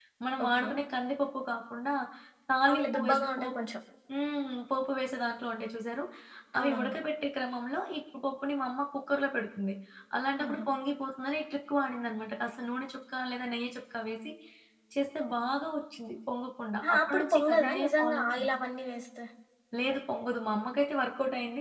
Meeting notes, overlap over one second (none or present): present